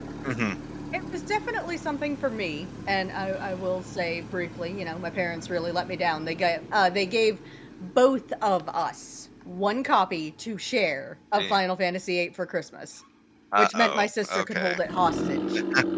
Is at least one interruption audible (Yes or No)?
Yes